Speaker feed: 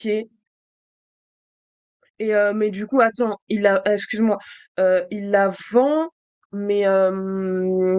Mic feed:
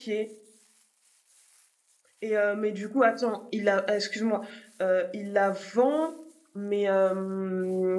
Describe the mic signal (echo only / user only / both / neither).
echo only